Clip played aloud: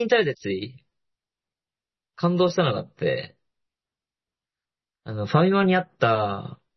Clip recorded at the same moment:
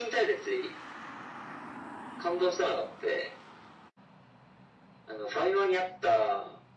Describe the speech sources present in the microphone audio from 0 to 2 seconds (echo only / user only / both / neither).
echo only